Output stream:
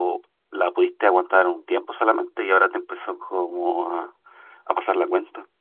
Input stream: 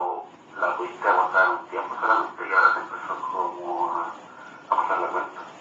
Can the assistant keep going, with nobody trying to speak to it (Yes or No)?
Yes